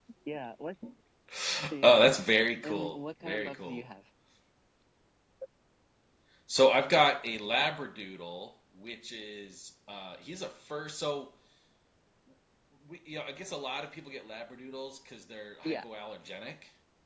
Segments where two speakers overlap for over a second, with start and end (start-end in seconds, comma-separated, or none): 2.6-3.9